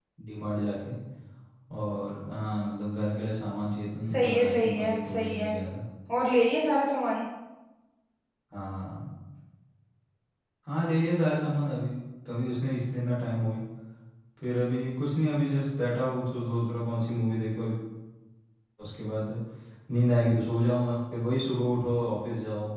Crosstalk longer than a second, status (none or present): present